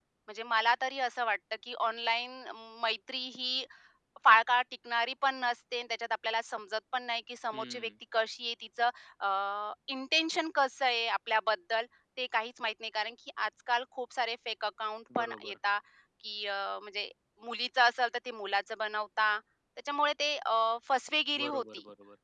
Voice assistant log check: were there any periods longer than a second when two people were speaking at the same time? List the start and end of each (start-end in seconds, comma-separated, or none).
none